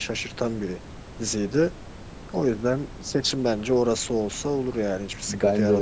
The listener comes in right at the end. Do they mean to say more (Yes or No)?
Yes